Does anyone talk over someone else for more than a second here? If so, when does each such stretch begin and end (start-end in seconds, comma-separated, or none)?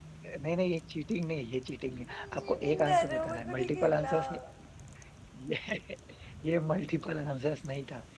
2.1-4.1